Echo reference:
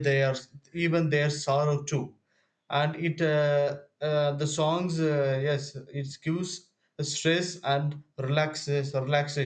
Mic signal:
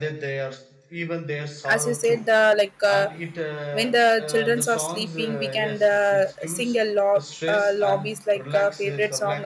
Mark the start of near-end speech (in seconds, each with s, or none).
1.7 s